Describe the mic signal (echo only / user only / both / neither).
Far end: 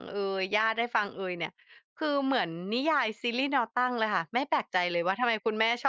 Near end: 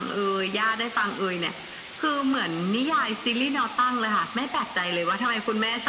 echo only